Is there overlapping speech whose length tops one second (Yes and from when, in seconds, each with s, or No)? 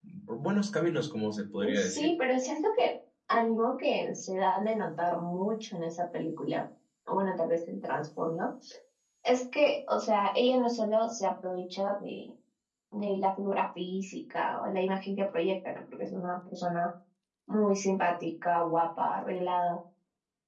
No